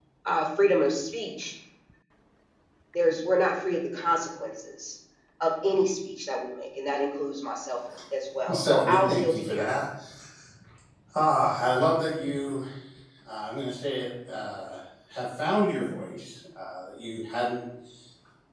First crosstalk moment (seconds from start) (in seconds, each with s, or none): 8.4 s